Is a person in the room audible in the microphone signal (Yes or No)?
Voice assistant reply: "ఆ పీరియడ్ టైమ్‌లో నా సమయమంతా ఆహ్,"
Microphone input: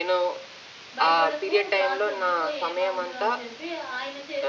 Yes